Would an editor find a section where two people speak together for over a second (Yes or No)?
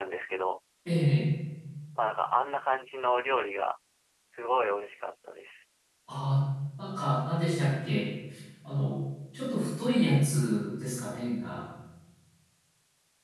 No